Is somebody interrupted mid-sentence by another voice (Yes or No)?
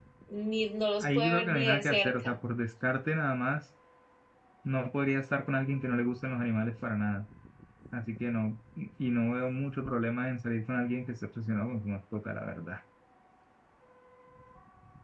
Yes